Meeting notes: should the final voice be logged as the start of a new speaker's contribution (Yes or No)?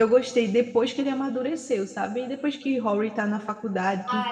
Yes